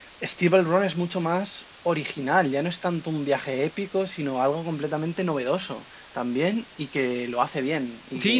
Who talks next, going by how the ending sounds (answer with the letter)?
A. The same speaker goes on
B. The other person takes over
B